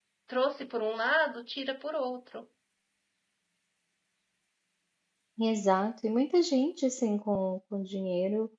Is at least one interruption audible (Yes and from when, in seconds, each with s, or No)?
No